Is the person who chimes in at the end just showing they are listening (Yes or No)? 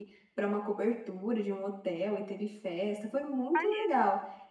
Yes